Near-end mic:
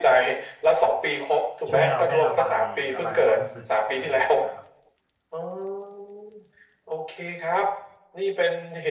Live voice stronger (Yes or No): No